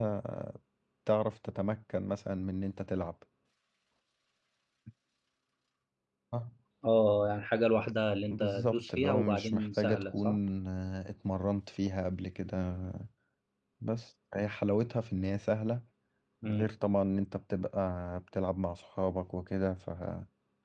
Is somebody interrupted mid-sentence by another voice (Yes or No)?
Yes